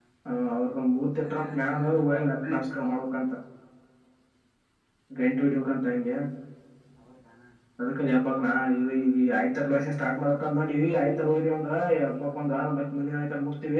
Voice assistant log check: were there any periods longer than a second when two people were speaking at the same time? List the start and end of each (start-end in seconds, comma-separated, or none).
1.2-2.5